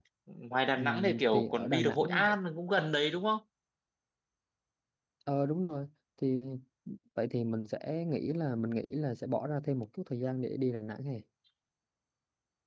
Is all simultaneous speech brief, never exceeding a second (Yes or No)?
No